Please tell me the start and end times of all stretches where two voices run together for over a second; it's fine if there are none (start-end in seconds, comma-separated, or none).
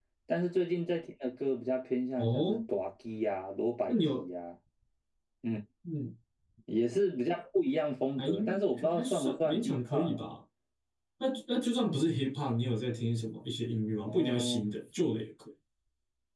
8.8-10.2